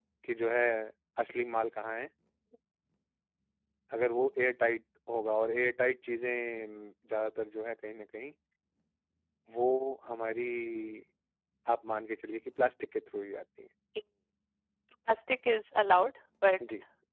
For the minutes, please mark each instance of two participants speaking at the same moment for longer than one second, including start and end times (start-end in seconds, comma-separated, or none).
none